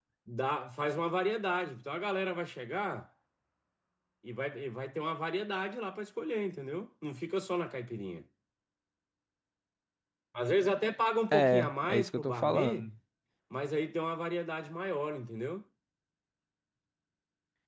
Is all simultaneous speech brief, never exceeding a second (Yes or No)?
No